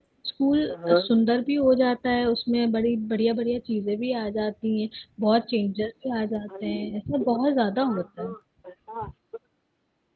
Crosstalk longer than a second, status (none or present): none